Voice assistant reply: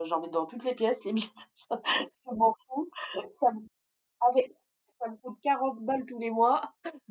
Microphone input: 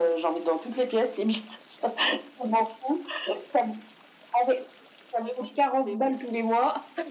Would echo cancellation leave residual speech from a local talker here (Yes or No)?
Yes